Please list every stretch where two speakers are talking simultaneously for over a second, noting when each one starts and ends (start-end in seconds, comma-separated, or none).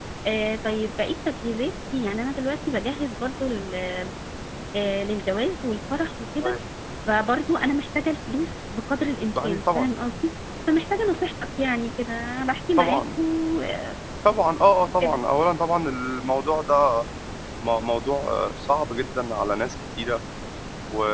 none